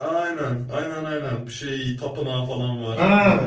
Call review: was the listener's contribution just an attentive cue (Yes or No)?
No